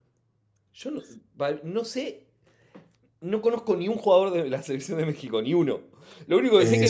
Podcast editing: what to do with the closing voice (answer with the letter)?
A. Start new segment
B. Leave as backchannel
B